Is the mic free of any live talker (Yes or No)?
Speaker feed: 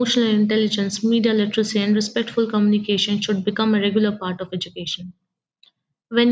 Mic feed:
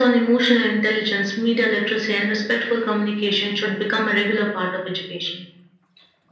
Yes